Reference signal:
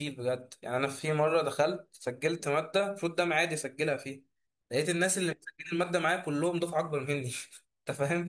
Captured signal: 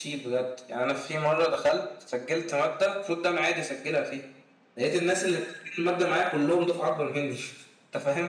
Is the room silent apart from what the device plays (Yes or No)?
Yes